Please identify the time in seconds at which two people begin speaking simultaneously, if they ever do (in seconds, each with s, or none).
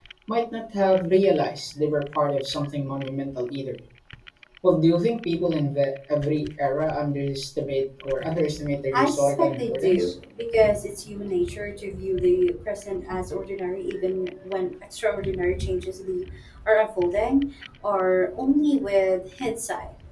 8.9 s